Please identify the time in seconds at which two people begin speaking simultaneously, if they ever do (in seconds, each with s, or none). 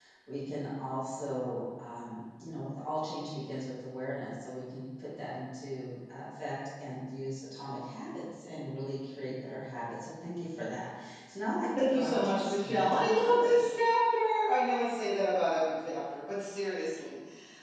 11.8 s